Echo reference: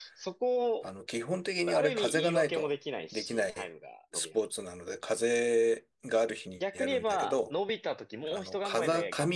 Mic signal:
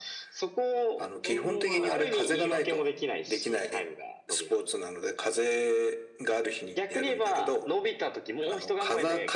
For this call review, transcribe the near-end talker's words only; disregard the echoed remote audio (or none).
専門は長距離